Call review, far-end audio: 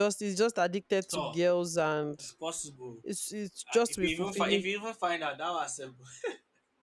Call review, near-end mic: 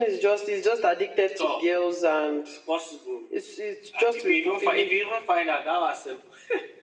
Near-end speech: none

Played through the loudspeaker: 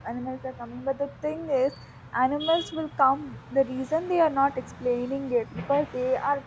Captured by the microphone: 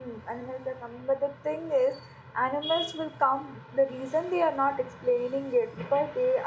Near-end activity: none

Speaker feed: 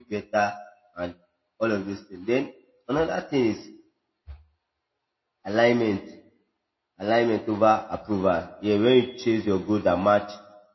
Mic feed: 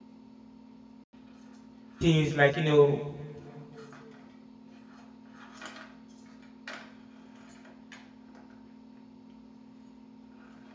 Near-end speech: present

